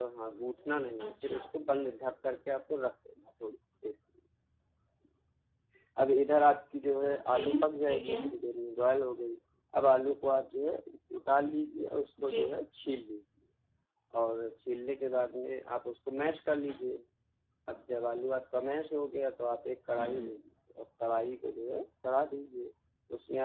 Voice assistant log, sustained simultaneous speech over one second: none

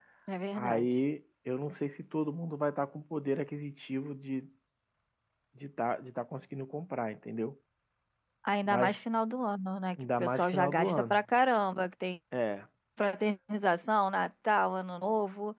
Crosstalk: present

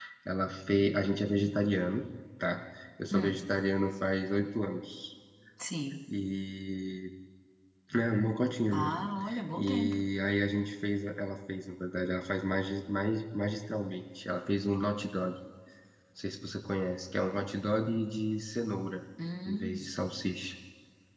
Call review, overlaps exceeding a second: none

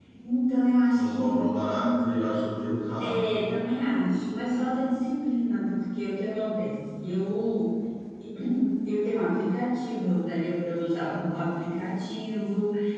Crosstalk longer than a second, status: none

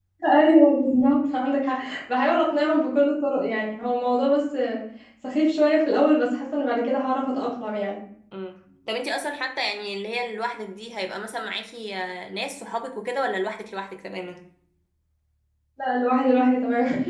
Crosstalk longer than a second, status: none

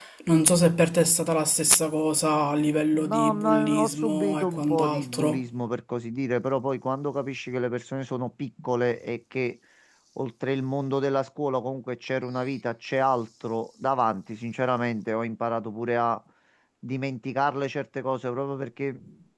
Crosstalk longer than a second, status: present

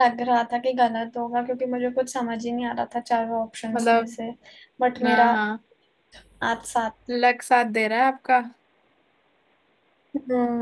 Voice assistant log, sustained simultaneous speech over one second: none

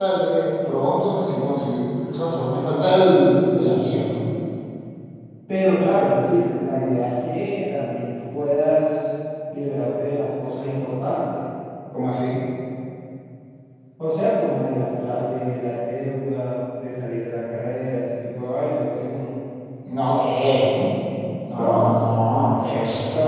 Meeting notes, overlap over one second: none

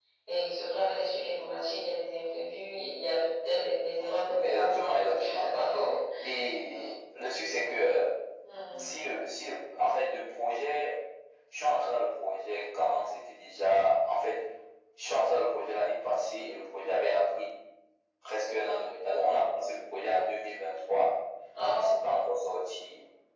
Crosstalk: present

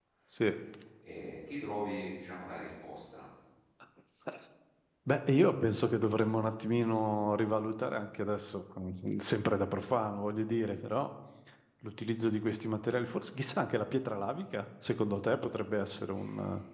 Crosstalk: none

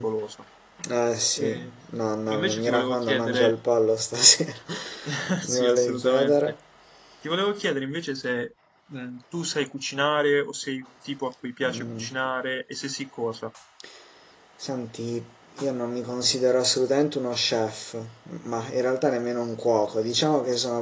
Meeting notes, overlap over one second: present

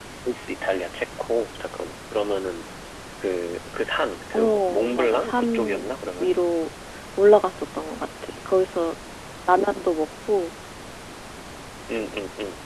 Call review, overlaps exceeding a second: present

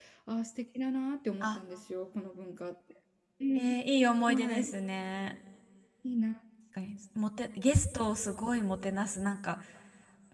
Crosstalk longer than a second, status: none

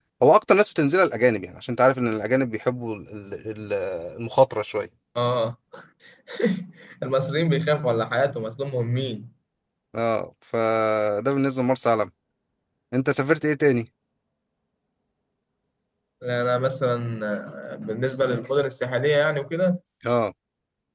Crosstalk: none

